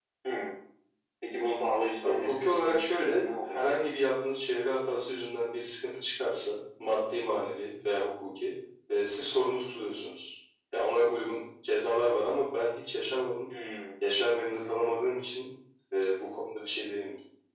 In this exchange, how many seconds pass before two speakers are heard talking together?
2.0 s

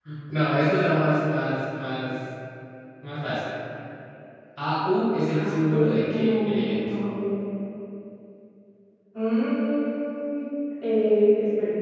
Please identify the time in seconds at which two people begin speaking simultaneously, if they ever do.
5.3 s

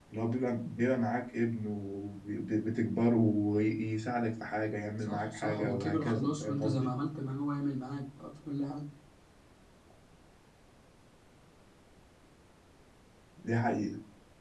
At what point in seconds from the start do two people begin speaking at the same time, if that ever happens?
5.0 s

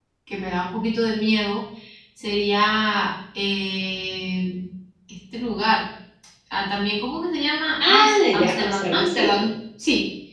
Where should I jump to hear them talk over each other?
7.8 s

